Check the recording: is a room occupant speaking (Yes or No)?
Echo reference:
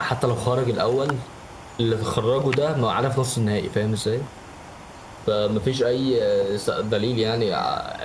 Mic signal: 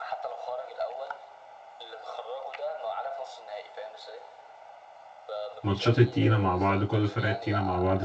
Yes